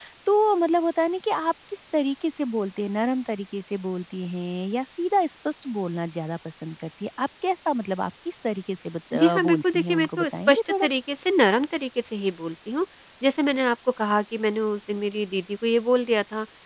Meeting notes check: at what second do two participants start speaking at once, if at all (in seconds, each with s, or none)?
9.1 s